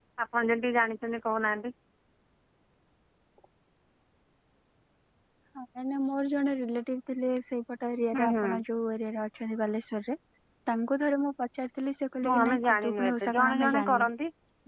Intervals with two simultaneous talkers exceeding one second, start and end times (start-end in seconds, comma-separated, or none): 12.3-14.1